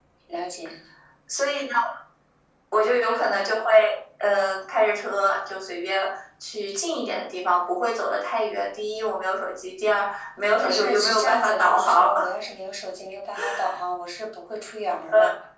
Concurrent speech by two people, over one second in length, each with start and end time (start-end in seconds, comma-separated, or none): 10.6-12.1